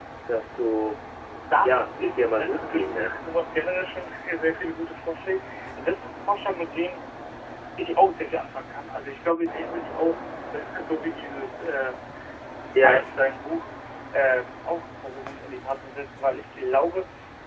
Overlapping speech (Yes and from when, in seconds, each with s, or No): Yes, from 1.6 s